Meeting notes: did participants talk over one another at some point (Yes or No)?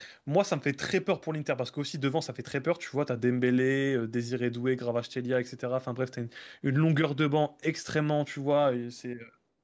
No